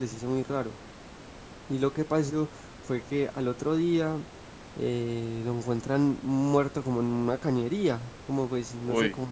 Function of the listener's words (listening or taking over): listening